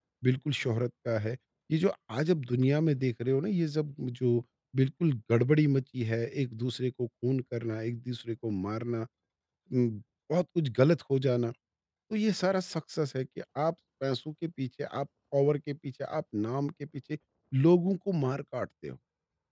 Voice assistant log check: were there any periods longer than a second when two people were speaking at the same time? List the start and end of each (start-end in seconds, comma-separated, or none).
none